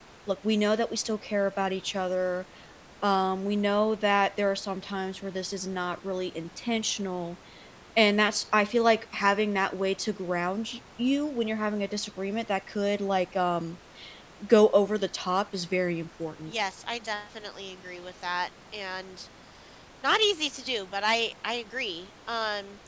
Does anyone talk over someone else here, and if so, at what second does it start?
none

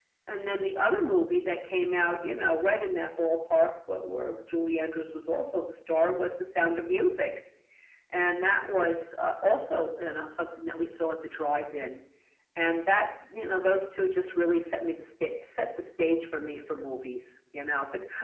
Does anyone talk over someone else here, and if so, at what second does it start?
none

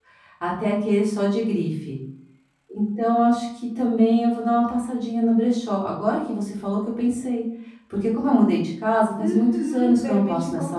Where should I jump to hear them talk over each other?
9.2 s

